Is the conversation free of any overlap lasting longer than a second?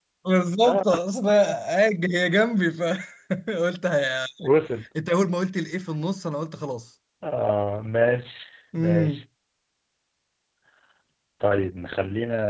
Yes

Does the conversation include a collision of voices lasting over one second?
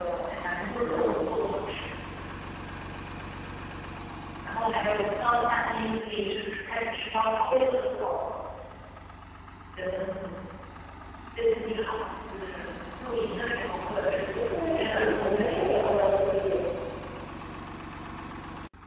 Yes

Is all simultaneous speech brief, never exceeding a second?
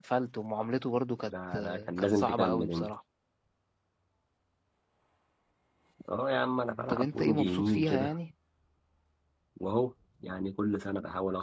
No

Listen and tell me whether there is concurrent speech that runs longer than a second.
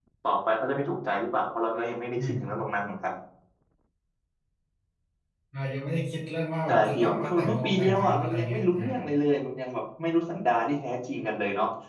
Yes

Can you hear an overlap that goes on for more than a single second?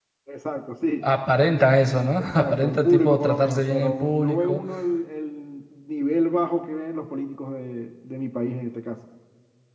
Yes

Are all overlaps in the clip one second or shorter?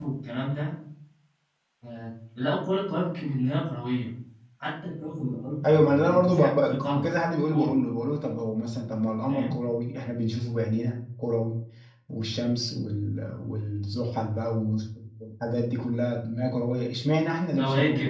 No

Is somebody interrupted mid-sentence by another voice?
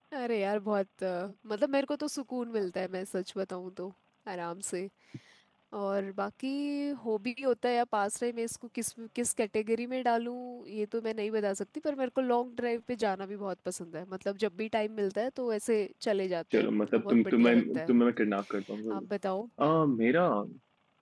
Yes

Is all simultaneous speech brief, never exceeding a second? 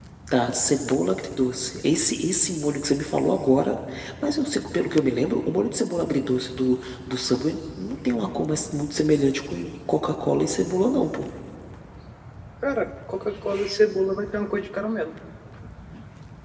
Yes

